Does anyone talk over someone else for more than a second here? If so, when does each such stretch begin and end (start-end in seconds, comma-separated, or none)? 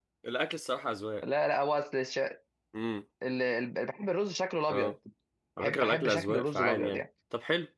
5.6-7.0